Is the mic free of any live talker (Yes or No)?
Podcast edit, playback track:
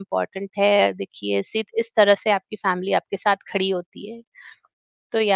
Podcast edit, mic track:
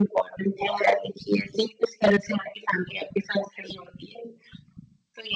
Yes